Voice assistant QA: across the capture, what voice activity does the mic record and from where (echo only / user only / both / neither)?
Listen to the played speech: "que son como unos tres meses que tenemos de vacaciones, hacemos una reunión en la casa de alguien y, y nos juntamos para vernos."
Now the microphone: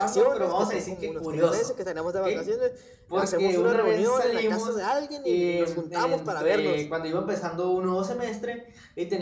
both